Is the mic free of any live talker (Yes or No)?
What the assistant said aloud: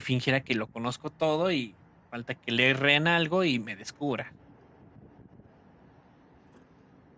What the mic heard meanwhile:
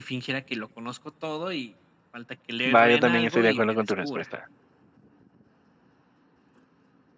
No